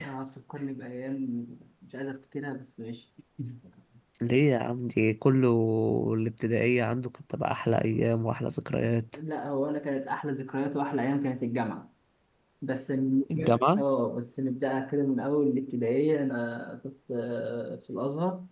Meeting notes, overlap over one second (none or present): none